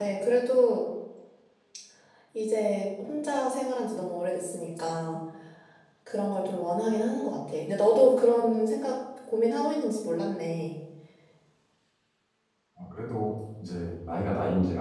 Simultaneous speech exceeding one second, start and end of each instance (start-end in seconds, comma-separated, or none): none